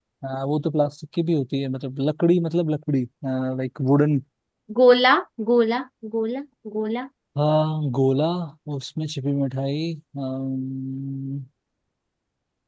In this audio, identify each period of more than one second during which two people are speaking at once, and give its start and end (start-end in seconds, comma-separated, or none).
none